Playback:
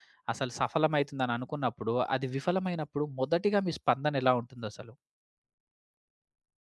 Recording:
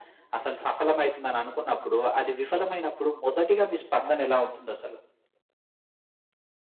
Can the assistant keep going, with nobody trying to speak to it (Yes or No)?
Yes